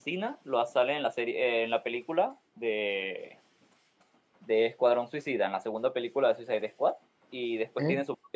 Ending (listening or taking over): listening